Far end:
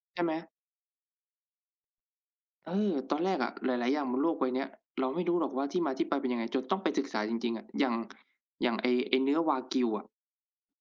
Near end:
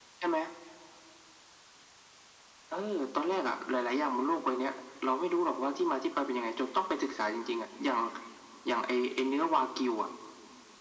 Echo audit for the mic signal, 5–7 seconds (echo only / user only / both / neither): echo only